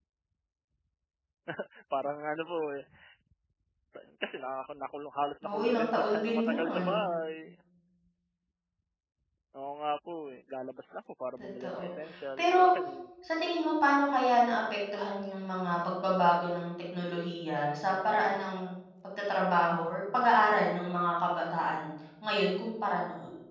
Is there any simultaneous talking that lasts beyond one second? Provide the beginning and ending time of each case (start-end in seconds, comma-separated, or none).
5.5-6.8